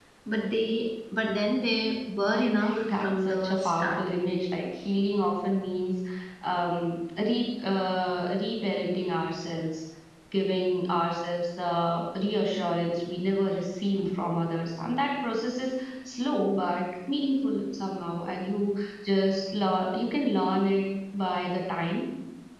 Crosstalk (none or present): present